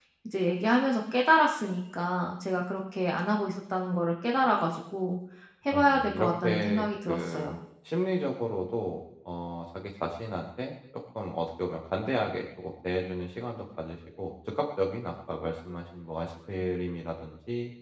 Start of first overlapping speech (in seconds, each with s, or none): 5.7 s